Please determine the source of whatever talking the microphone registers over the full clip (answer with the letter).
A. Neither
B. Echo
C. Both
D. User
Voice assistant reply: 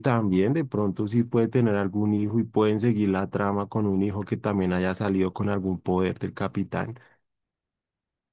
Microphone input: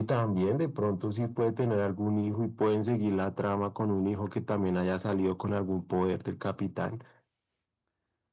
B